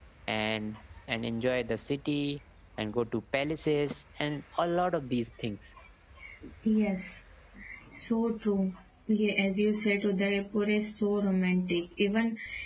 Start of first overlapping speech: none

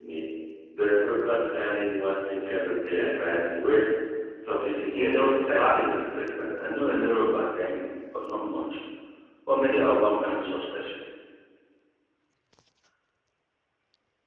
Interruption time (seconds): 4.7 s

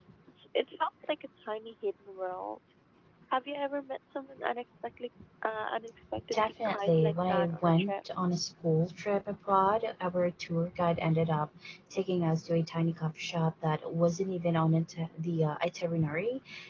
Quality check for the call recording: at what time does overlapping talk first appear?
6.3 s

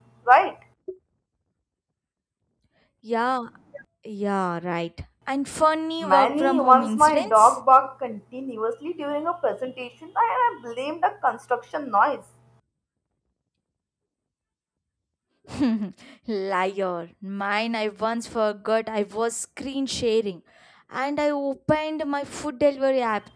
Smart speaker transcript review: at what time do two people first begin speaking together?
6.0 s

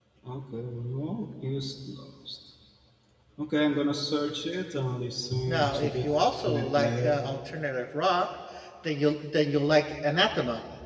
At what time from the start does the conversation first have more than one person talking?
5.5 s

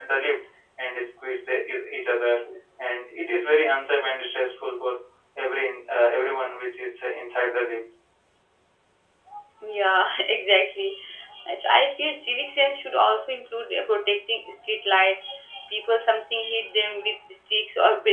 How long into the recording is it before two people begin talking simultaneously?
none

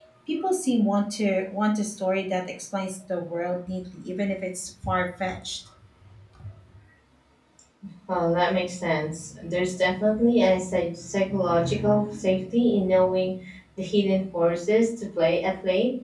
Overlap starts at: none

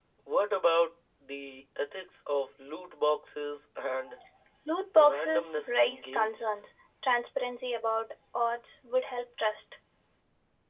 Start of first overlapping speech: 5.0 s

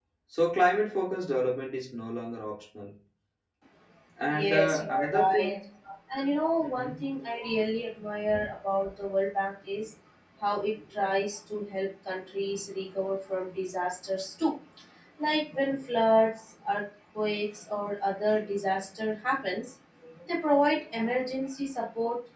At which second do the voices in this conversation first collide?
4.3 s

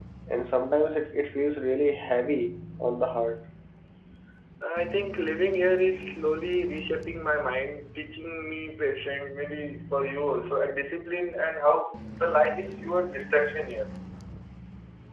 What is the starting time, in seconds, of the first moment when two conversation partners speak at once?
none

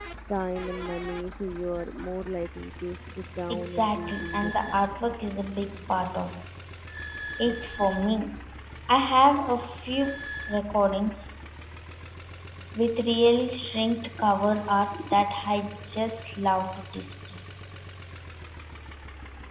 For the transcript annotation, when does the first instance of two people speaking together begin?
3.5 s

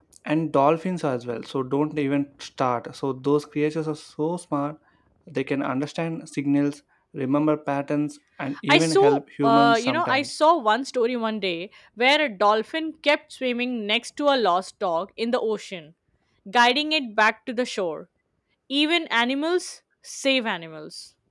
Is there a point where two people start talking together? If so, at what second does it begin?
8.7 s

